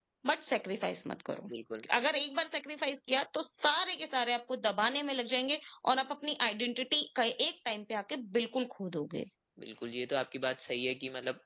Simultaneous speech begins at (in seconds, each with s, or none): none